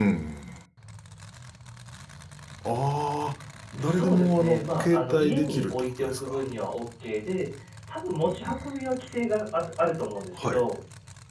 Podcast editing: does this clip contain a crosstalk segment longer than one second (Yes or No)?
Yes